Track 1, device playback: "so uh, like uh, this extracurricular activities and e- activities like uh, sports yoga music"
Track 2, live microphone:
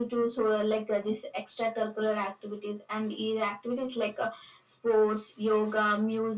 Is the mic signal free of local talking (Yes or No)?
Yes